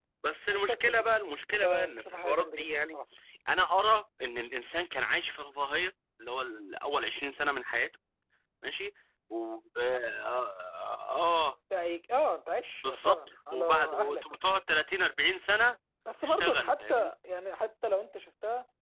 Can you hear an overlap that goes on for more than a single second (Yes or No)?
Yes